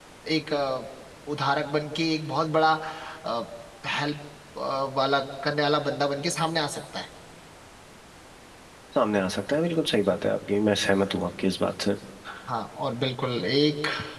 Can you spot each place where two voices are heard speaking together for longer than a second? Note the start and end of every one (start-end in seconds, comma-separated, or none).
none